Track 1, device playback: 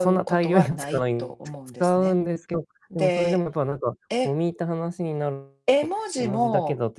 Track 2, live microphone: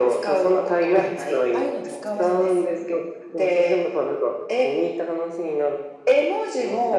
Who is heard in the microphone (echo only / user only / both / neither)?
both